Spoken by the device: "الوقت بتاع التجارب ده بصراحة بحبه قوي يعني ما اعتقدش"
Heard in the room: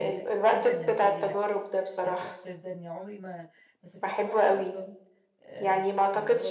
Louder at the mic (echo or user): echo